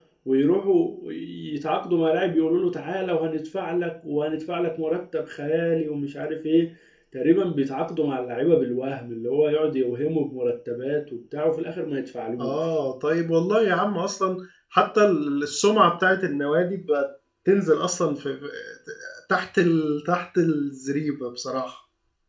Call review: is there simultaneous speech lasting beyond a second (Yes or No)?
No